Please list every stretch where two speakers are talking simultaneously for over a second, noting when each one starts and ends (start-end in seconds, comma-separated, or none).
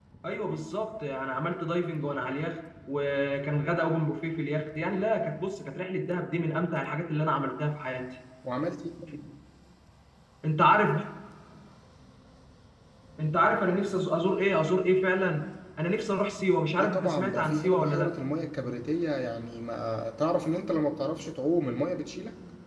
16.8-18.1